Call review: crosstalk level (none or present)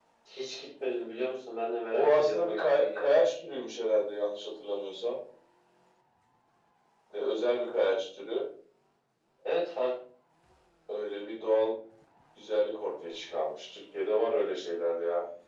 present